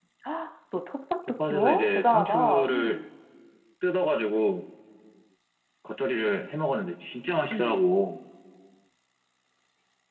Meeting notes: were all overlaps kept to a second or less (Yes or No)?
No